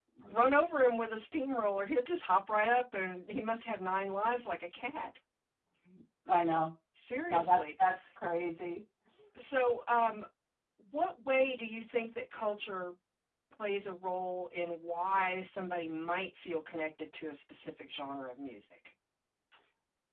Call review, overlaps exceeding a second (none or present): none